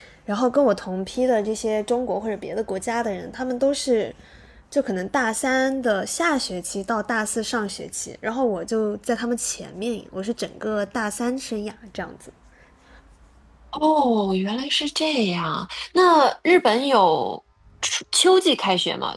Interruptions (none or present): none